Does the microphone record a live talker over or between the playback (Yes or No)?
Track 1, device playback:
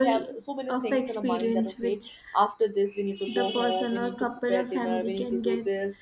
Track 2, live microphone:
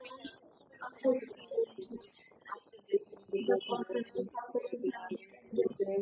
No